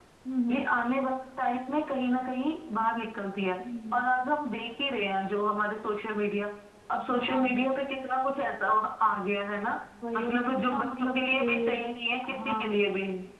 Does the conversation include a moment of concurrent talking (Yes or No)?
Yes